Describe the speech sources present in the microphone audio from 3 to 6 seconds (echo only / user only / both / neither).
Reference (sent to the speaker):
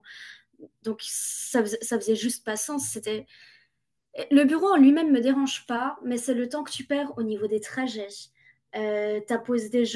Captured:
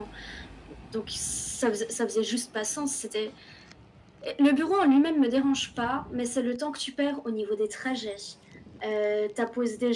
echo only